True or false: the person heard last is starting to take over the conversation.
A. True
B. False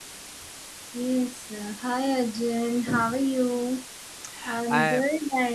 B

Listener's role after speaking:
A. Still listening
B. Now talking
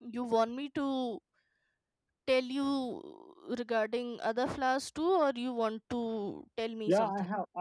B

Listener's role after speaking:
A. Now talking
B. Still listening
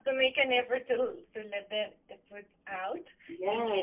A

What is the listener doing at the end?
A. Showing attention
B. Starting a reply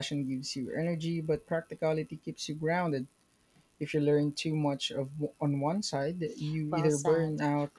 B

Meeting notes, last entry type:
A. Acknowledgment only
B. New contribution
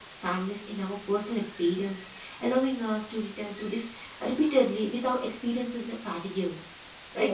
B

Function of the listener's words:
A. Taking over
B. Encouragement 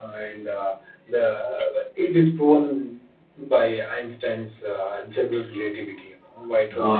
A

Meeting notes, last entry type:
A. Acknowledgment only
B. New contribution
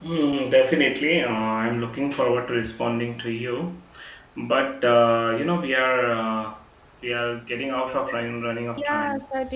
B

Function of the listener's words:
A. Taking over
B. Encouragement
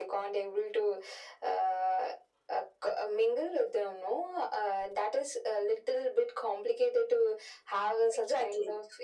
A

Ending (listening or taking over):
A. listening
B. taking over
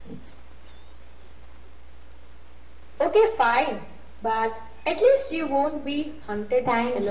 B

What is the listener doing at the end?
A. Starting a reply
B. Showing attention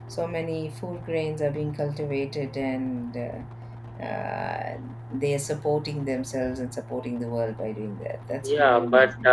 A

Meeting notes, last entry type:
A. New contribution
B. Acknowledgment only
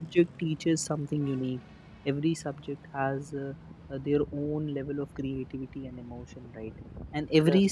B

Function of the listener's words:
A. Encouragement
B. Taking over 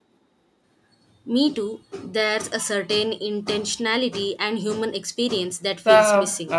B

